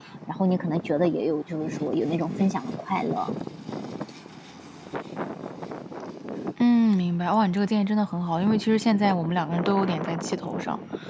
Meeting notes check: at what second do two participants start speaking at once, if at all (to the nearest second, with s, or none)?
none